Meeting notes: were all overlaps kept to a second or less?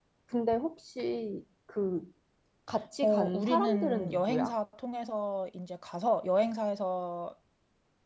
No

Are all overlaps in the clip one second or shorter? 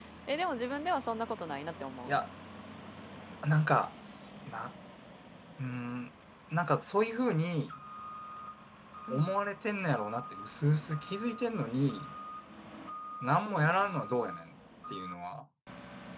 Yes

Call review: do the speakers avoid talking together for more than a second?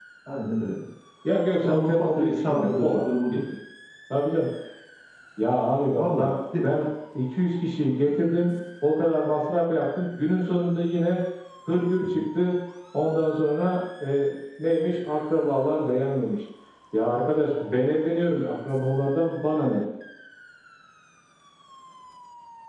No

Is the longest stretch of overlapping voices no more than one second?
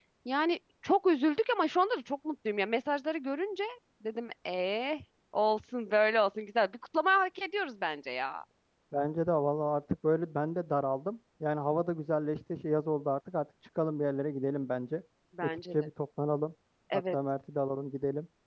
Yes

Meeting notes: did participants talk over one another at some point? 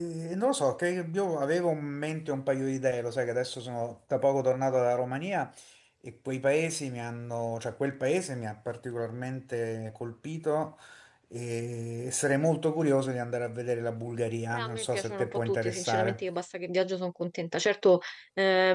Yes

